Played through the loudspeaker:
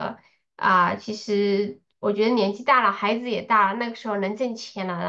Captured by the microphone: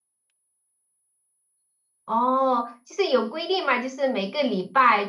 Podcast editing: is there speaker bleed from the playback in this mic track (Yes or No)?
No